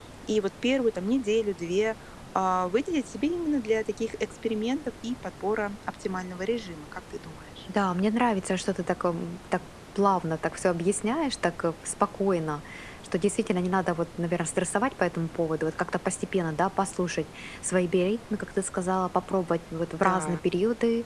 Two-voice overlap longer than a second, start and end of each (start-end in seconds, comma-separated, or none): none